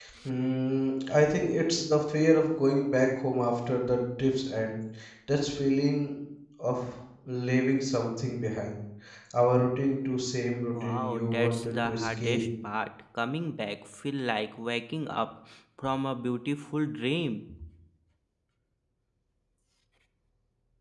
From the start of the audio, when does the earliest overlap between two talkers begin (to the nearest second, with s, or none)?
11 s